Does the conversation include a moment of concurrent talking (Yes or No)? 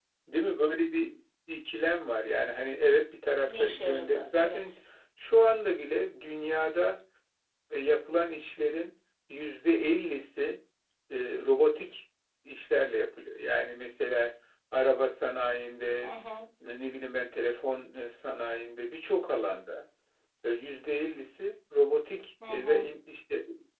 Yes